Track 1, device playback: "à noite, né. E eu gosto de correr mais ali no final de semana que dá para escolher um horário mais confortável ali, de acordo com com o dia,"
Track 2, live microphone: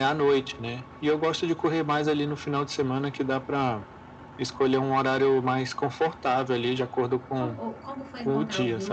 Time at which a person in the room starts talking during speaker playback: 7.3 s

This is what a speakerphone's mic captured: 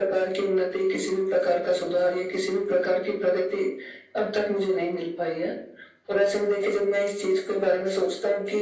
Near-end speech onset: none

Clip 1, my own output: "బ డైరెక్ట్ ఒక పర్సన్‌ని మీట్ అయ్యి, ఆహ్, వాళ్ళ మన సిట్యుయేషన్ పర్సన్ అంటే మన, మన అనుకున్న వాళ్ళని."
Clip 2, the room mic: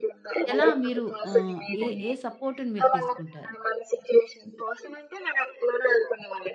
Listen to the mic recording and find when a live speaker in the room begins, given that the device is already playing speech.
0.5 s

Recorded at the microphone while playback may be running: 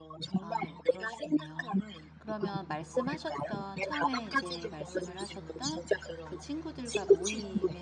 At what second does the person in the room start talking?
0.4 s

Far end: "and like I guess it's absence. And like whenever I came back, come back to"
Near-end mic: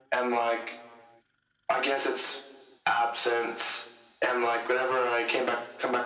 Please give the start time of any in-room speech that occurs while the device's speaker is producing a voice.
none

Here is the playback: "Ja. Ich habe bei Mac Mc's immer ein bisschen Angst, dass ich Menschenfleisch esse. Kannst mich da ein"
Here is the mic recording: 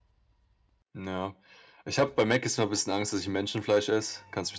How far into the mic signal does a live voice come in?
none

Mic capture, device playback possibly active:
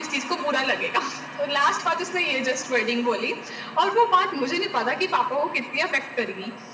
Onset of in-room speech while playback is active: none

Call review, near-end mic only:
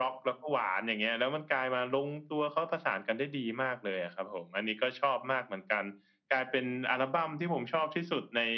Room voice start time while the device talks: none

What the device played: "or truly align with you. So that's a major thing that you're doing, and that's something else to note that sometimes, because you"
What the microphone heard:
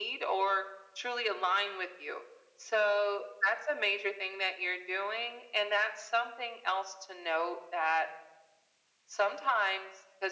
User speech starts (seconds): none

